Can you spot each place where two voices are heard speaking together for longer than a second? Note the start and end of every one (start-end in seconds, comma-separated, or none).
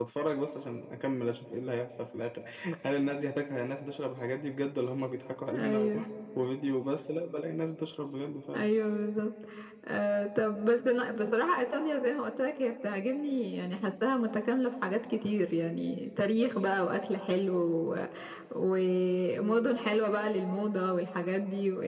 none